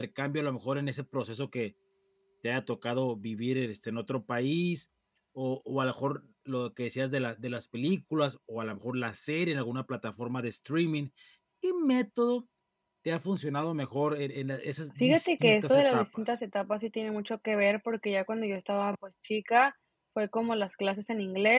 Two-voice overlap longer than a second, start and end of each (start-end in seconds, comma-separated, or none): 15.0-16.4